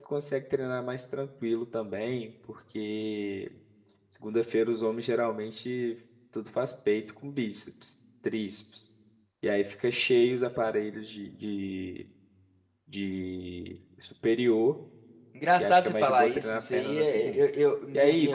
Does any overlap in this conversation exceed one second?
Yes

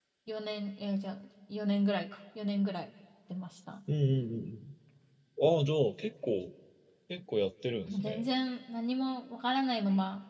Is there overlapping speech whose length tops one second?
No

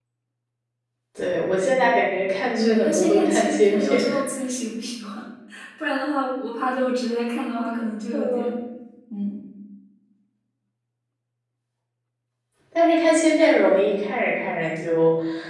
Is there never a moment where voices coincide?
No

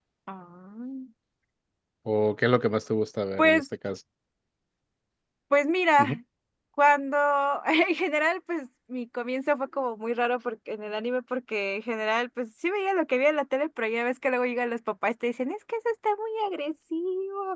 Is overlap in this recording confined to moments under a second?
Yes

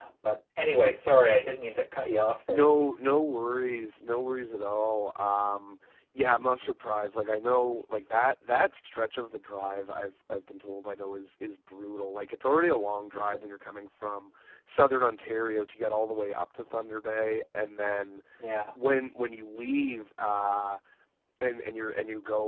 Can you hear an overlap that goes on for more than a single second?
No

